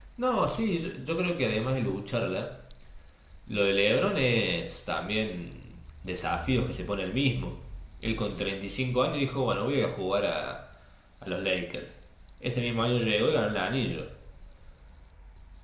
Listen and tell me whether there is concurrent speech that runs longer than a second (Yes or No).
No